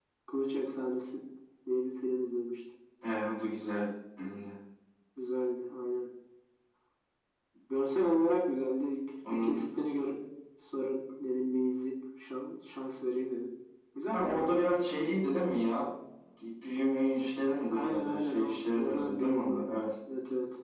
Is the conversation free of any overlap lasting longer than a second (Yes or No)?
No